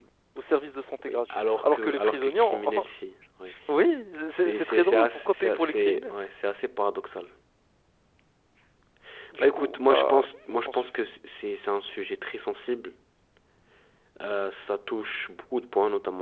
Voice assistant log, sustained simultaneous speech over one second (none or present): present